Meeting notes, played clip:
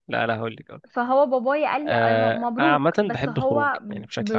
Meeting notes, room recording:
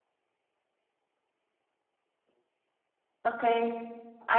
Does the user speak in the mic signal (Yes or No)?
Yes